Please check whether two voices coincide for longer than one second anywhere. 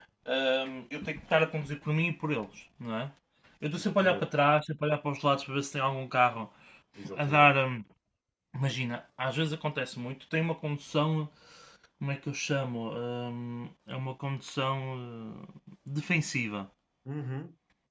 No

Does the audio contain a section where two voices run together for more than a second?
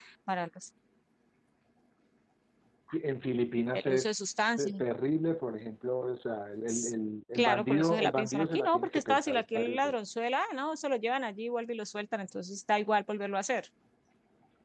Yes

